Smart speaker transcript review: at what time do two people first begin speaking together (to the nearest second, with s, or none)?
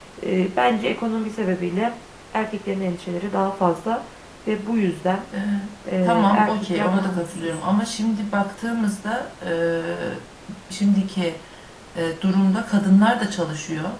6 s